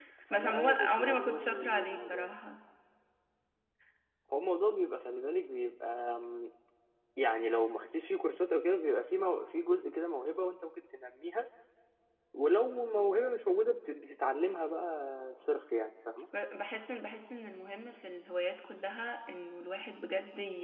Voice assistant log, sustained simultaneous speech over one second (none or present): present